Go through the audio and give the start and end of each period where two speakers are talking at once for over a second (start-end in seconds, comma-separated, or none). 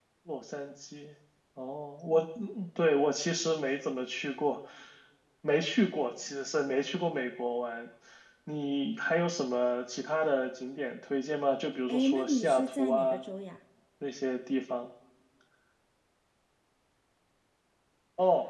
11.9-13.2